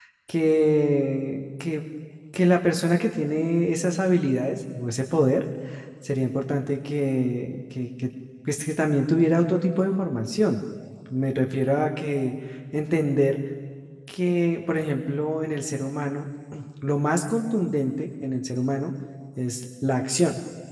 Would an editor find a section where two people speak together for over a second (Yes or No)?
No